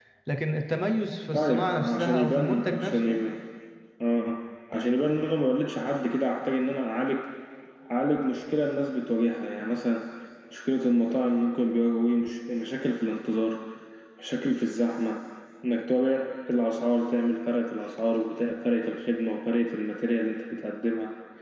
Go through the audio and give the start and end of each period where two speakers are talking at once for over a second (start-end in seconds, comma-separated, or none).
1.3-3.2